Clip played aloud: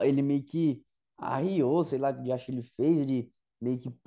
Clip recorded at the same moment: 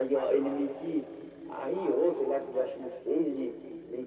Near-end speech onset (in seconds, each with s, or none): none